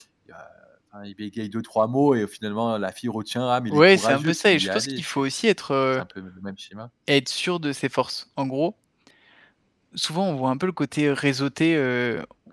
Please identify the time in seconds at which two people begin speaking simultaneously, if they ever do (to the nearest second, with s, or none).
4 s